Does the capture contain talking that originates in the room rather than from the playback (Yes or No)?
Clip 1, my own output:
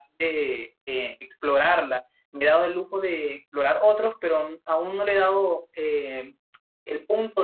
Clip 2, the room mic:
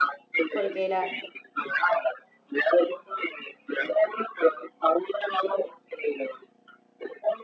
Yes